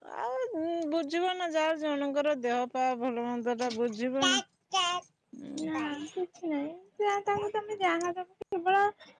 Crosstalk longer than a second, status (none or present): none